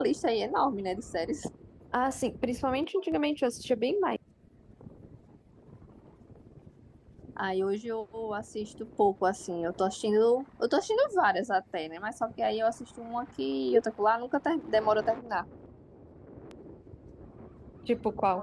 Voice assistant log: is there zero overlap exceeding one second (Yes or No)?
Yes